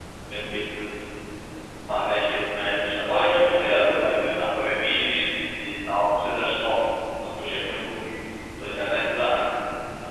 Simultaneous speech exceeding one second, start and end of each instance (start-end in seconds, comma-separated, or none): 2.9-4.4